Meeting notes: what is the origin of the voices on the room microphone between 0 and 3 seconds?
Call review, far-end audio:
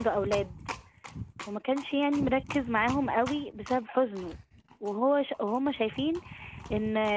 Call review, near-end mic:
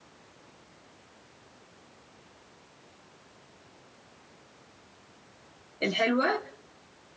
neither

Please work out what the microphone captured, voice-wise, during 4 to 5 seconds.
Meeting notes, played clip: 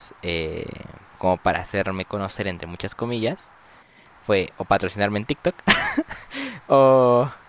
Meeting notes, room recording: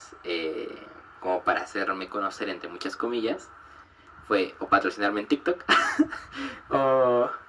echo only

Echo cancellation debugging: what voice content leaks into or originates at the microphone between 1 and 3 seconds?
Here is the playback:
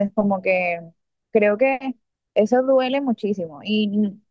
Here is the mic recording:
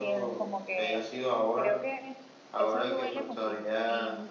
both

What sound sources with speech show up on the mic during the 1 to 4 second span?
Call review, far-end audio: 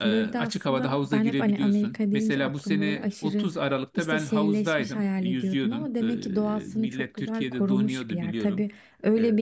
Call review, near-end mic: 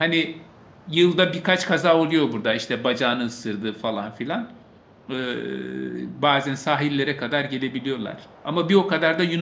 user only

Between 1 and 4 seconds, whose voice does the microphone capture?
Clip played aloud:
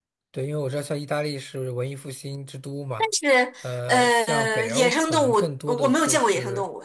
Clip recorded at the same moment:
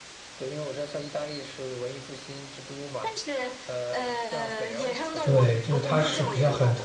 echo only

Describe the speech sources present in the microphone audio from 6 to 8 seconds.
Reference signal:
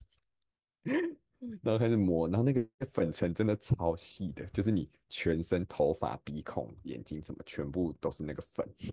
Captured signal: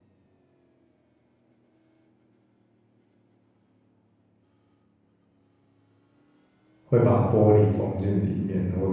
user only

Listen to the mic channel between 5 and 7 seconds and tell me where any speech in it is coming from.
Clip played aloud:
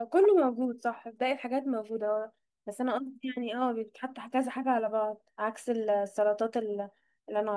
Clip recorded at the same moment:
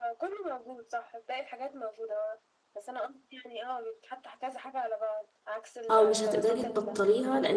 both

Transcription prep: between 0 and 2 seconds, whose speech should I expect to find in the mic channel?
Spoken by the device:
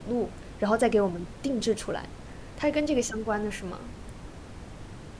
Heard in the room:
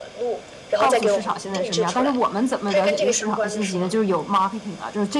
both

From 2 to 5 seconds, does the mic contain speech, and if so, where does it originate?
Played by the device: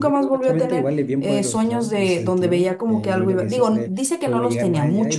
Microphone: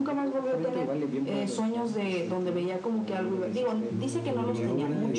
both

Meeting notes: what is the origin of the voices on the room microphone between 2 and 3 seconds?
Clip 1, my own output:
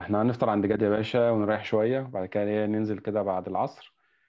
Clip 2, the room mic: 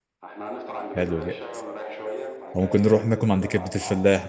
both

